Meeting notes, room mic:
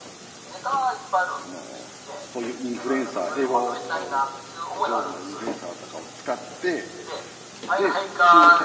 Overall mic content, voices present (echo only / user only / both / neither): both